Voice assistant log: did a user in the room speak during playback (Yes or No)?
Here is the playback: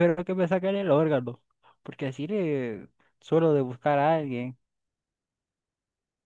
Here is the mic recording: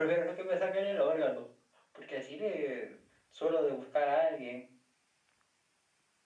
No